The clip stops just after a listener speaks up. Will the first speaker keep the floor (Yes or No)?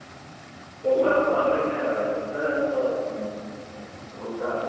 Yes